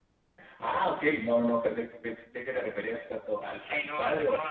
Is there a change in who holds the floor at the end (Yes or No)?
Yes